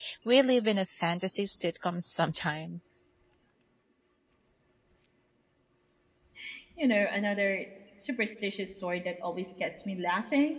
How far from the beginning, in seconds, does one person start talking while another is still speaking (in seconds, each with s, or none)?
none